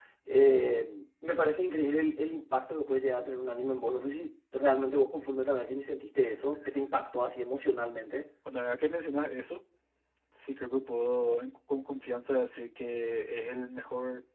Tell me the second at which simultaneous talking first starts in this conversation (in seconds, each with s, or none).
none